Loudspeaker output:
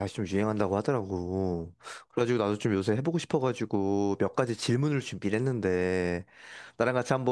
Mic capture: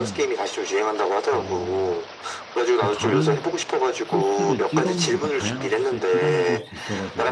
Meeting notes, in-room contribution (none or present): present